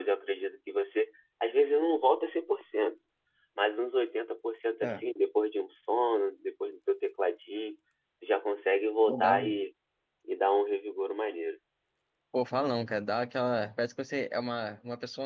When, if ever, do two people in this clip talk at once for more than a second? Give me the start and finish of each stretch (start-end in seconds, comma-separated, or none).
none